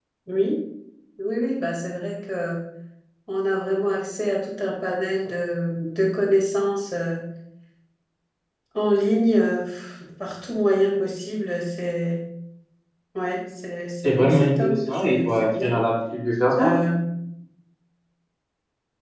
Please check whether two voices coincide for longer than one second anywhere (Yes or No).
Yes